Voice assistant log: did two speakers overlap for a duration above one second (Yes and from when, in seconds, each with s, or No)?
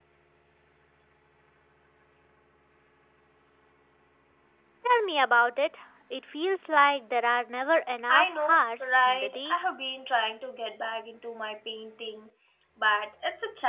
Yes, from 8.1 s